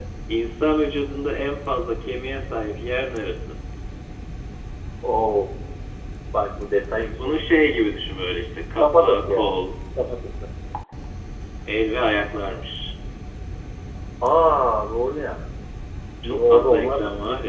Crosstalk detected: Yes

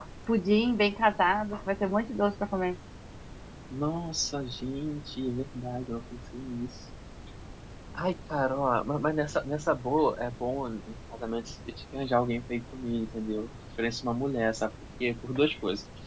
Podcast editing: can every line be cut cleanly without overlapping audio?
Yes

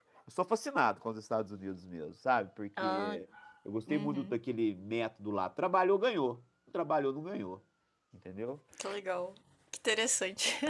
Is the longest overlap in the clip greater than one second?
No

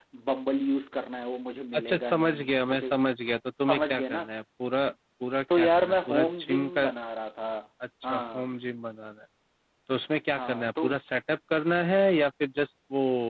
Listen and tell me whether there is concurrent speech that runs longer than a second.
Yes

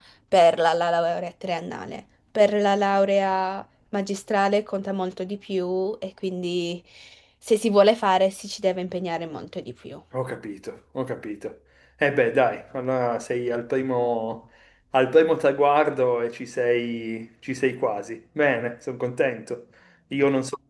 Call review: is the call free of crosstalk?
Yes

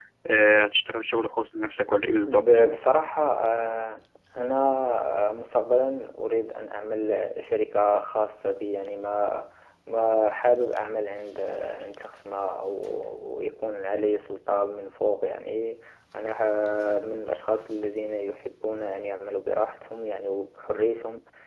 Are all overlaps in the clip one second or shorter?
Yes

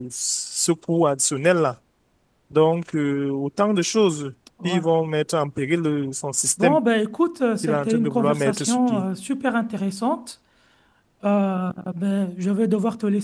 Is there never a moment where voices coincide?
No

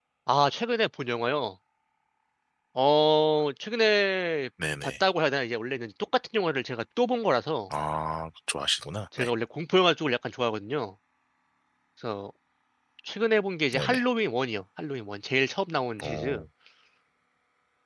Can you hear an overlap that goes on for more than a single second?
No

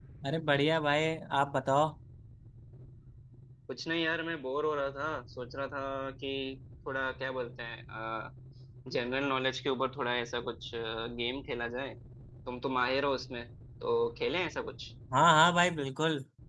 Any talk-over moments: No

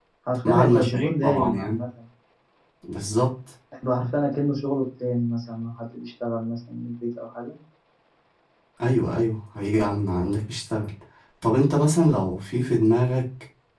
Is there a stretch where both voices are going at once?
Yes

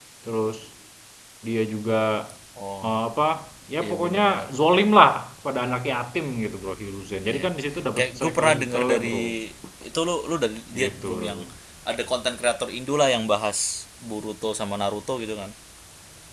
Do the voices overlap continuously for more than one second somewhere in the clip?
Yes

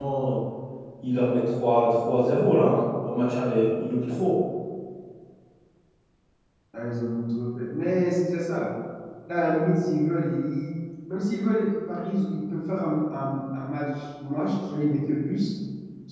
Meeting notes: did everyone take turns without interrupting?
Yes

